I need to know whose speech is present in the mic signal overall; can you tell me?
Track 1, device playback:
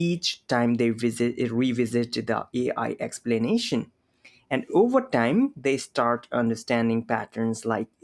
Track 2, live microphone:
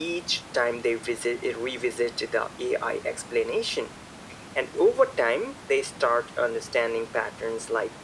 echo only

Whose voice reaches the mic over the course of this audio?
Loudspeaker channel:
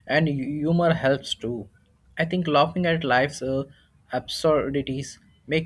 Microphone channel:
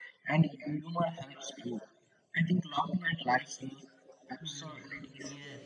both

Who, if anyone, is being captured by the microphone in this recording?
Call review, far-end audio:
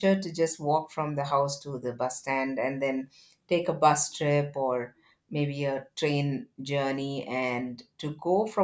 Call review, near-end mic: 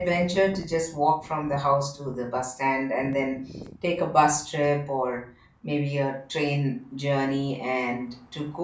echo only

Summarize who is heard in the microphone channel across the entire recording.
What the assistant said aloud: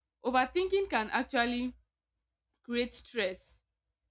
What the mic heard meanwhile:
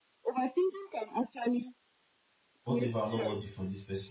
both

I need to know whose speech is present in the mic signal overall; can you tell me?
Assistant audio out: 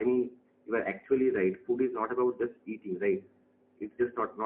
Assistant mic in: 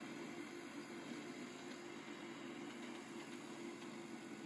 neither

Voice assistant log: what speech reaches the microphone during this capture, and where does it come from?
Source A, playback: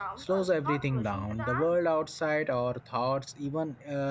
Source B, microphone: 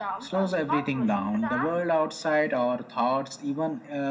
echo only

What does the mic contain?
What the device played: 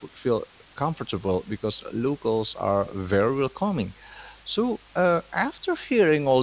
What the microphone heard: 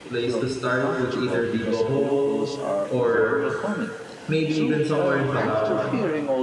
both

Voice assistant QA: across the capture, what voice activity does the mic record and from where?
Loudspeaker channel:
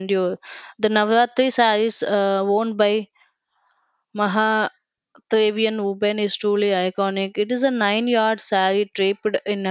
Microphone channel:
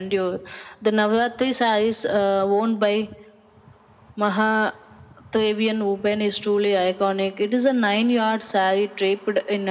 echo only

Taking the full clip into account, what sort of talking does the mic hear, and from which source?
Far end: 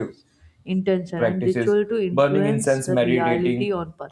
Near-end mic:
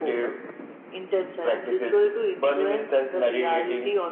echo only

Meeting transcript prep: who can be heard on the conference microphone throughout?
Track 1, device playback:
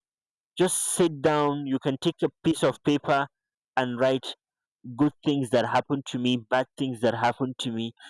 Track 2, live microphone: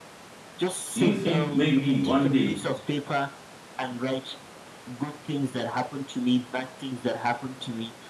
both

